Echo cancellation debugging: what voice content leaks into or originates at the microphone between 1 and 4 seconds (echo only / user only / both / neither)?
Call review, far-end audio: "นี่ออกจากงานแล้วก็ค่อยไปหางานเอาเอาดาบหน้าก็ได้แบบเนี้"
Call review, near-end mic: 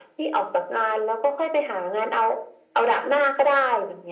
echo only